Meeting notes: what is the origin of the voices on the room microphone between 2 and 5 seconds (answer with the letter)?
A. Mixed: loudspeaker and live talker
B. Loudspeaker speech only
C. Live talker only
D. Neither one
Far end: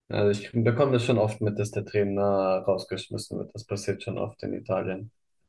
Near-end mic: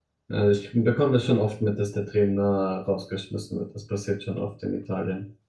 B